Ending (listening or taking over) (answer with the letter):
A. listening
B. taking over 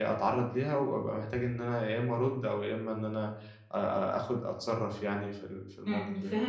B